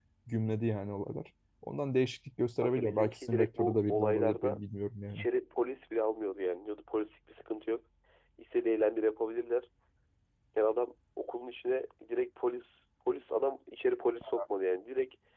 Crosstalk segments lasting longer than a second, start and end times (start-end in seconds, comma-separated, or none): 2.6-4.6